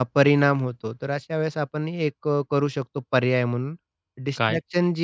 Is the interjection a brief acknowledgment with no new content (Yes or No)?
Yes